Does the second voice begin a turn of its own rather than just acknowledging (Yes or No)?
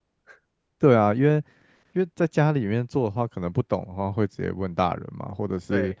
No